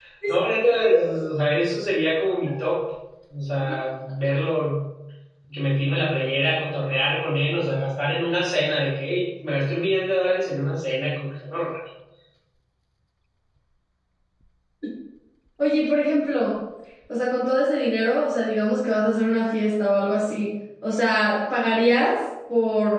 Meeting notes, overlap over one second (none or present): none